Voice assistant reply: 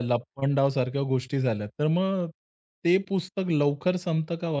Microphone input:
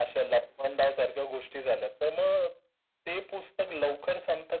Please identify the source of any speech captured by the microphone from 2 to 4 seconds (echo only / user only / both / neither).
echo only